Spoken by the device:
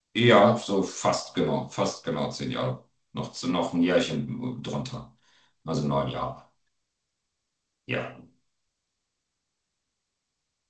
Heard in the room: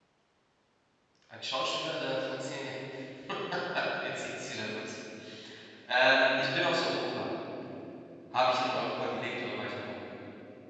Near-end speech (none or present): present